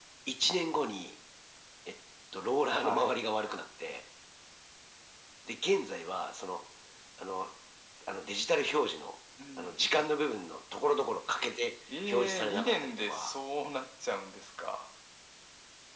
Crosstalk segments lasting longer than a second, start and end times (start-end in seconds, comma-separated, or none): 12.1-13.3